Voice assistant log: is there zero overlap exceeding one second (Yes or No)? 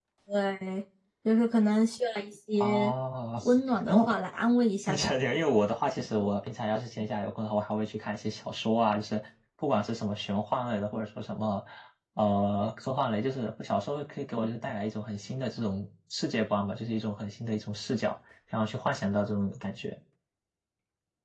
Yes